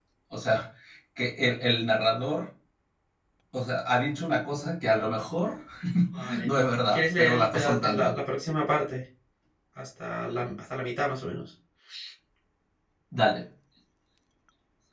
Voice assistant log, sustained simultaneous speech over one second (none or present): present